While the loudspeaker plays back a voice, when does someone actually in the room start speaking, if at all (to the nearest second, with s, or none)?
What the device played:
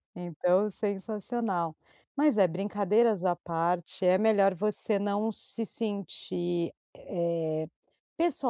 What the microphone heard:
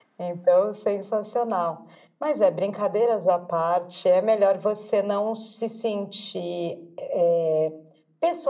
none